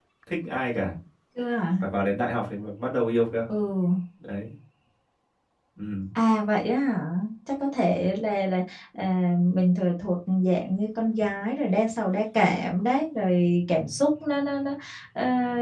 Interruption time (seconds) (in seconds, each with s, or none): none